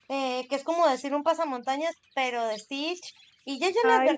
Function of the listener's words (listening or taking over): listening